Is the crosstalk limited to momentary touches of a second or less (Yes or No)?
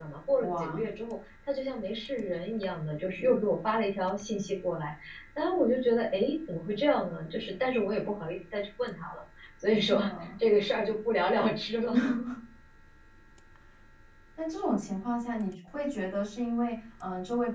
Yes